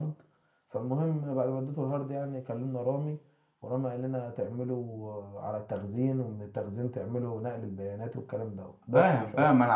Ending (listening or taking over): taking over